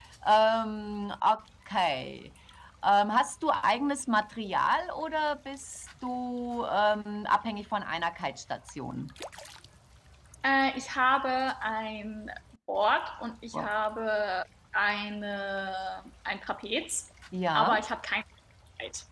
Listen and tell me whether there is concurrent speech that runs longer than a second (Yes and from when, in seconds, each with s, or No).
No